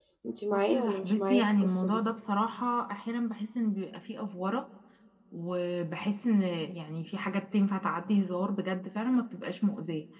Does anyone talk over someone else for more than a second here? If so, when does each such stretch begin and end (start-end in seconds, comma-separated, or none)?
0.5-2.0